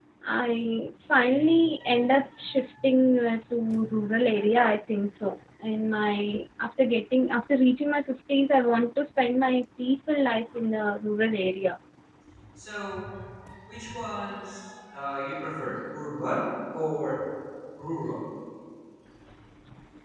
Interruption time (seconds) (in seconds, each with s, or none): none